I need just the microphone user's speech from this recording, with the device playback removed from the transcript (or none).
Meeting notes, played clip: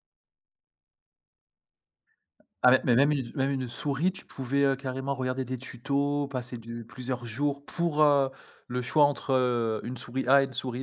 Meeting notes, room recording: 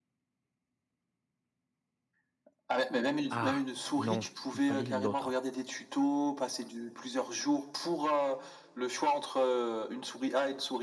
«Ah non, il fallait l'autre».